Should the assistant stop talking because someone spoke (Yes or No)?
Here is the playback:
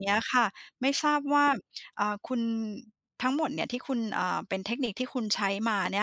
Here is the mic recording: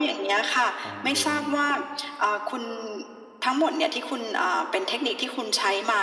Yes